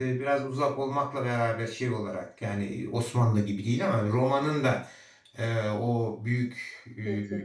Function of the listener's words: listening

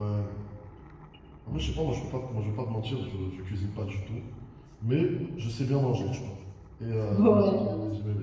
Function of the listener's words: listening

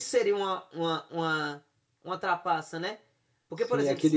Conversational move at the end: taking over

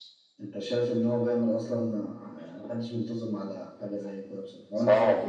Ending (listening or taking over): taking over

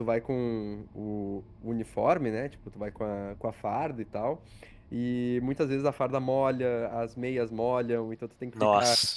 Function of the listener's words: listening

